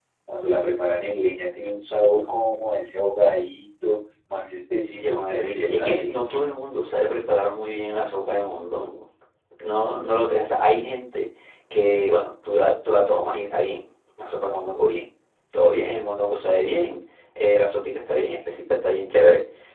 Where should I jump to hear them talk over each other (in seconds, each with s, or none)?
4.9 s